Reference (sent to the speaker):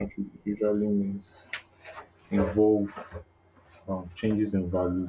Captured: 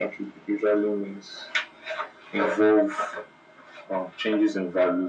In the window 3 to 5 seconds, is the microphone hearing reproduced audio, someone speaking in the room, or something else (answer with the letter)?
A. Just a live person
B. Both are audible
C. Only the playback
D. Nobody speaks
C